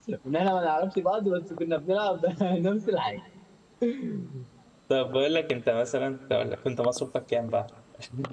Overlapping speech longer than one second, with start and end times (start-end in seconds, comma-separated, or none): none